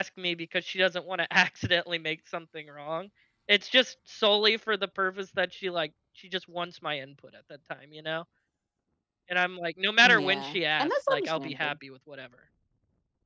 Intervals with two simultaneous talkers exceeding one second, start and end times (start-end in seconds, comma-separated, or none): 10.1-11.7